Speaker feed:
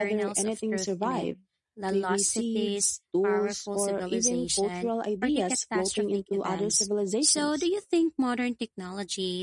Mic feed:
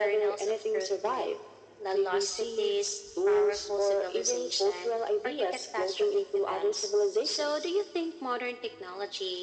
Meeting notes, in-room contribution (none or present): none